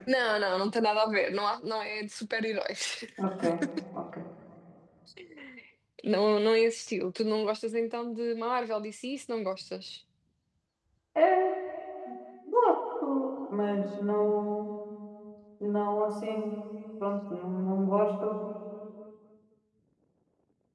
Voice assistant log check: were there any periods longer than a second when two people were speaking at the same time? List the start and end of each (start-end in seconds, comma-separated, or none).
none